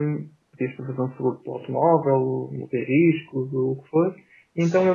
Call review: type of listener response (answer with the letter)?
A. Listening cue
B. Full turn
A